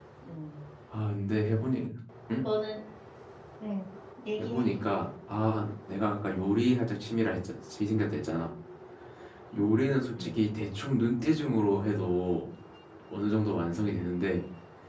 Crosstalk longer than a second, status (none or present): none